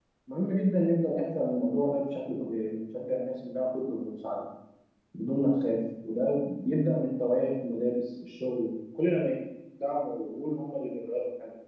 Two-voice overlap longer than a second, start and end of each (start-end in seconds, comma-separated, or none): none